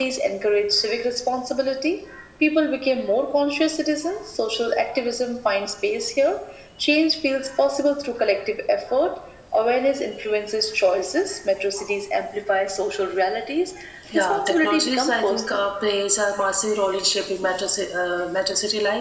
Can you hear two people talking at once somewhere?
Yes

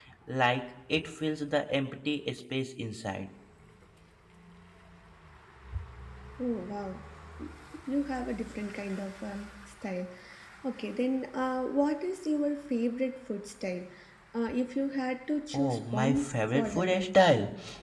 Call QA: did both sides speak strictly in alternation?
No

